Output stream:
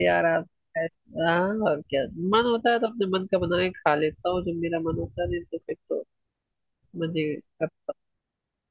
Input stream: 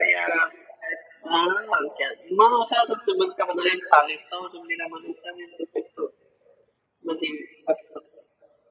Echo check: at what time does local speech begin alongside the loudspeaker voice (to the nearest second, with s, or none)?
none